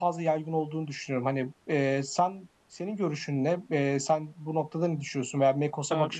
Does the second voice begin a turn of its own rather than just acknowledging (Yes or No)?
Yes